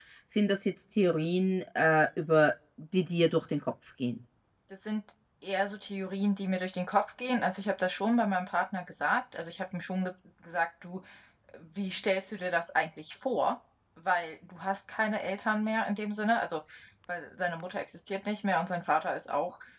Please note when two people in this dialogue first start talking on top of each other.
none

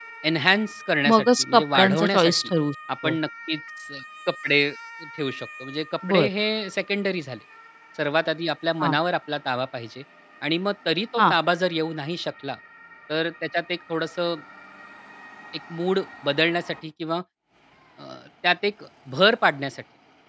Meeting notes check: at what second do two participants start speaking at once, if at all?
1 s

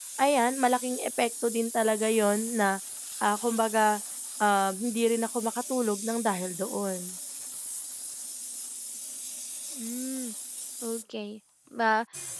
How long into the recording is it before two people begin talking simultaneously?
none

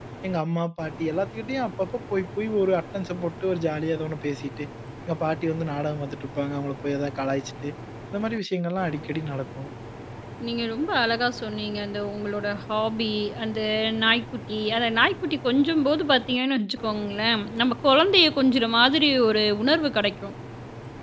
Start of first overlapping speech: none

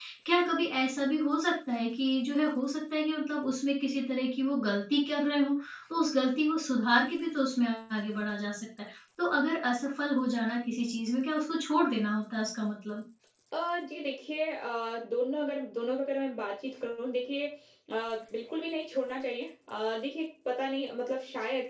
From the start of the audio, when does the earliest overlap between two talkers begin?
none

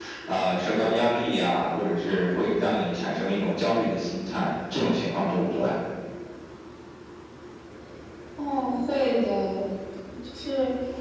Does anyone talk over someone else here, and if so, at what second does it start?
none

